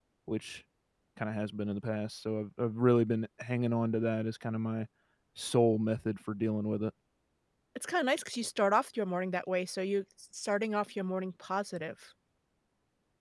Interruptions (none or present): none